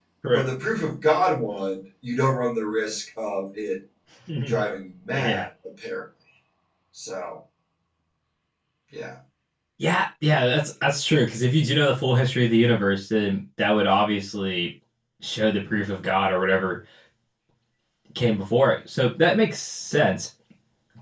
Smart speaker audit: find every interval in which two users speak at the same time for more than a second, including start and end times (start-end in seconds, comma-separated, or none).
none